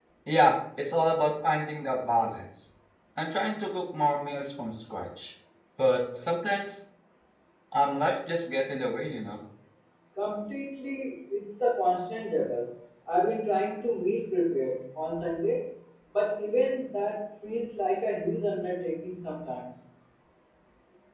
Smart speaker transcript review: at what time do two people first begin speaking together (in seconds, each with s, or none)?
none